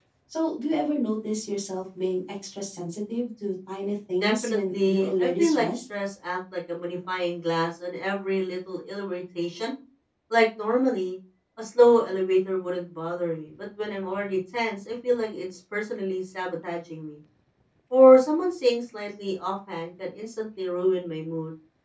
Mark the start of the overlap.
4 s

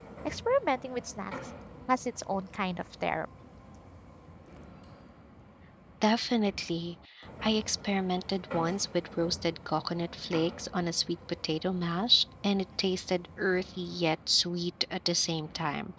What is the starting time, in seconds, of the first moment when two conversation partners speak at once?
none

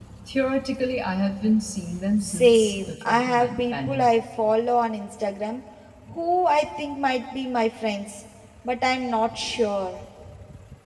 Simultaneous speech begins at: 2 s

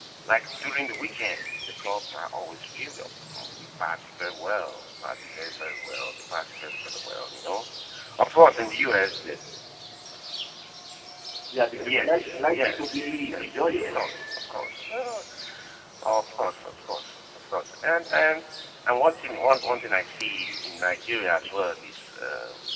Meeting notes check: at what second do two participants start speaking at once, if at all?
12 s

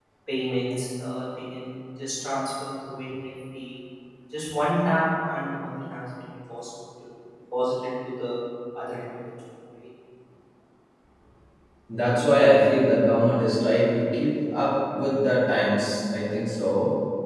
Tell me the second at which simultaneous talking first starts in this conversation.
none

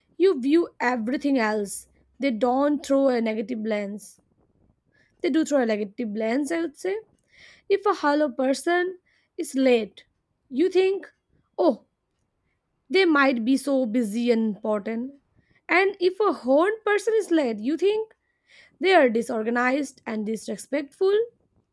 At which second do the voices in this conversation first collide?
none

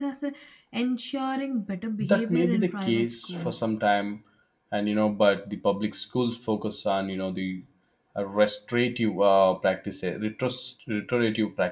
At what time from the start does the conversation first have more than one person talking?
2 s

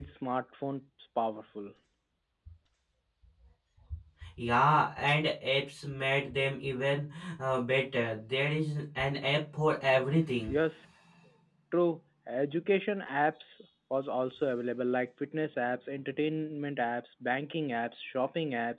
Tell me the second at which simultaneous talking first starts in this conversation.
none

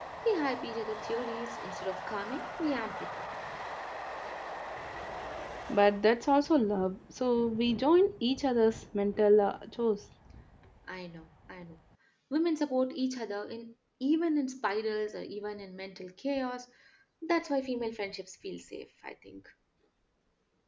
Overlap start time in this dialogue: none

